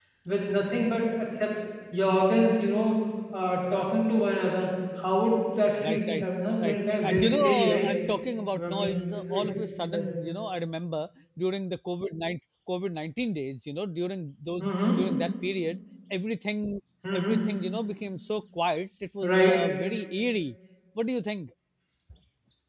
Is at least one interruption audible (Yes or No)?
Yes